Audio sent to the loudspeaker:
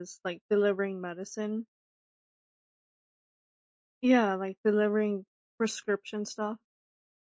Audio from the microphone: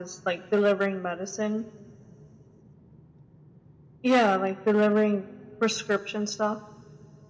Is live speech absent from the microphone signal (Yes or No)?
Yes